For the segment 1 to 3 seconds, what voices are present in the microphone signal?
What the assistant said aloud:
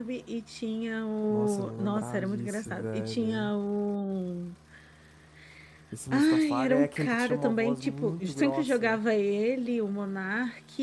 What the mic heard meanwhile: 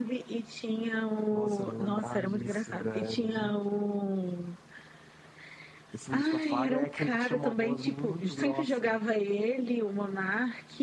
echo only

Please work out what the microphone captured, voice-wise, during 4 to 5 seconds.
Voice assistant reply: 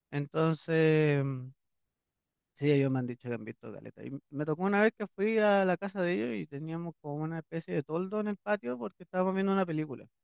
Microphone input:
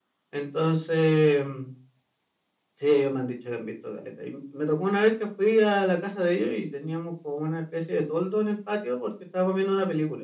echo only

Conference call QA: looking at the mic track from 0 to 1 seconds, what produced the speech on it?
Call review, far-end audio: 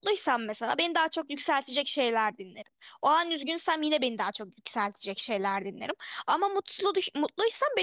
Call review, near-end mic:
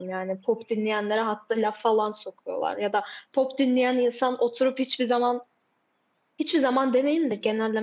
user only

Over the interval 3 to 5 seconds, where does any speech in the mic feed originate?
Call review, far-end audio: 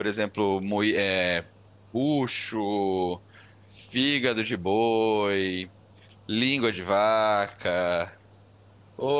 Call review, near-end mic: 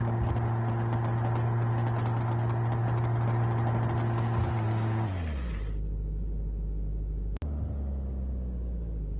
neither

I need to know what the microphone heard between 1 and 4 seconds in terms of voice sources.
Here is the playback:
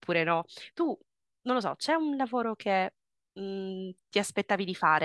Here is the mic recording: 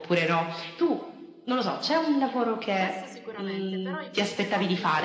both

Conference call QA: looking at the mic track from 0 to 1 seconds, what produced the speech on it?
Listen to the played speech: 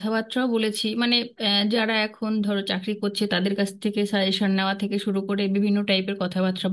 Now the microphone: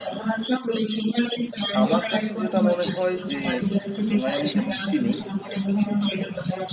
echo only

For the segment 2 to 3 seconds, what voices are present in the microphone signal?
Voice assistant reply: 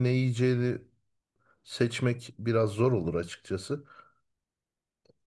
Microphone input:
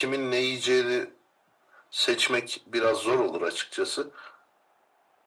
echo only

